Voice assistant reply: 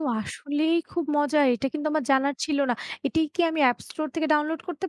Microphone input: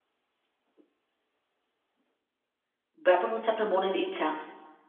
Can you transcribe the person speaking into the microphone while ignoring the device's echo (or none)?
ব্যাপার হচ্ছে আপনার মনের ইচ্ছা।